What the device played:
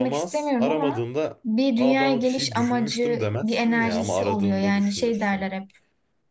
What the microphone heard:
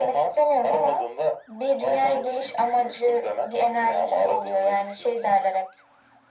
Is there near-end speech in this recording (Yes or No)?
No